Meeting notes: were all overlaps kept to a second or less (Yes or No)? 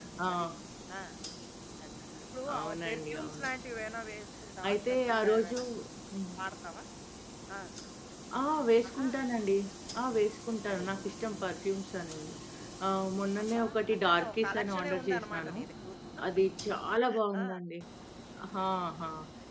No